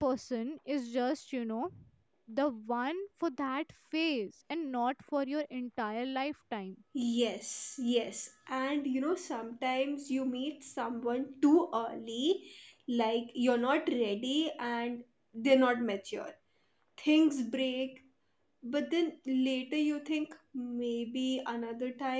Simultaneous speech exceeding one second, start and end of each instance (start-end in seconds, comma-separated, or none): none